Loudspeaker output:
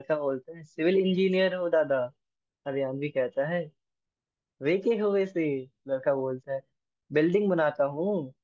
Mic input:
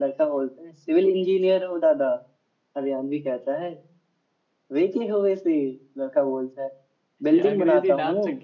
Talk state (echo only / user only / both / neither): both